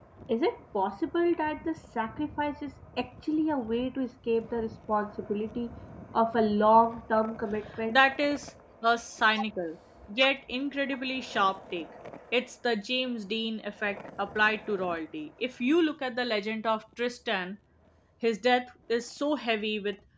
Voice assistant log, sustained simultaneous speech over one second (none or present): none